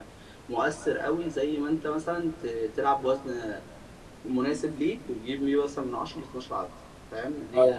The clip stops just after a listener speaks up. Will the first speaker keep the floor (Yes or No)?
No